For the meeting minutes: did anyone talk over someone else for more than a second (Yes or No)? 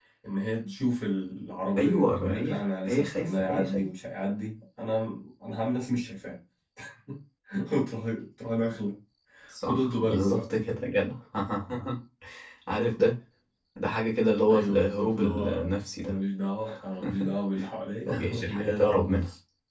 Yes